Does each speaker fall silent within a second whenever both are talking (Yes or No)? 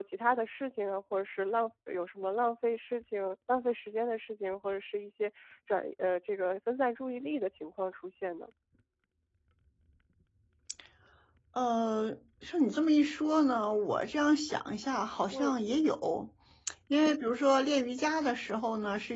Yes